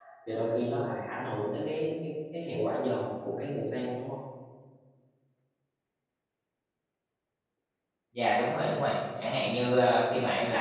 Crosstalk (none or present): none